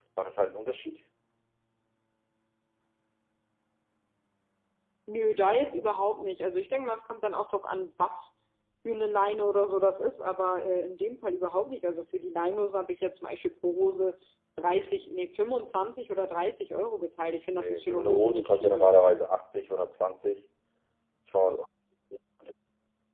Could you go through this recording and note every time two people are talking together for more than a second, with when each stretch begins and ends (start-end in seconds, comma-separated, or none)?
17.5-18.9